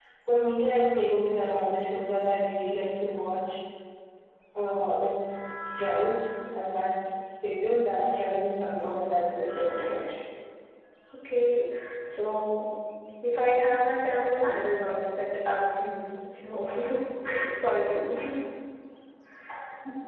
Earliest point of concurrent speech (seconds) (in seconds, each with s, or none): 8.8 s